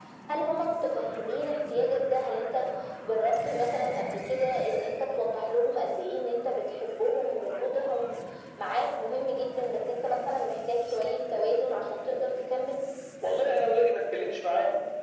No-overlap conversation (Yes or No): Yes